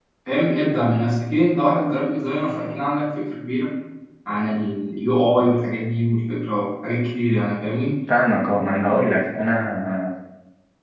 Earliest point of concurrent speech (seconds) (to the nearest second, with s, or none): none